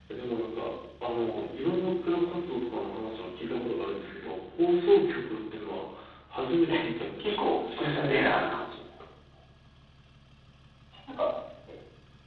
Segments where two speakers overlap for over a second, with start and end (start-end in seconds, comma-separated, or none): 7.2-8.5